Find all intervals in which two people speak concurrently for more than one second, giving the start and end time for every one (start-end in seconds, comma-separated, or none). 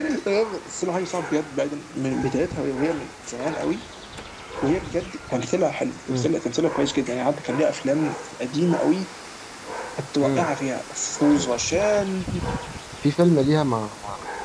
none